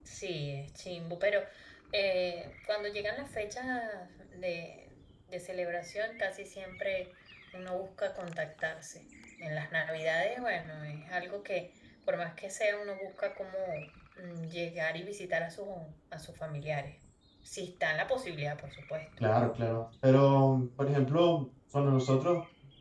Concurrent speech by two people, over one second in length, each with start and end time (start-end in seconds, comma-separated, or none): none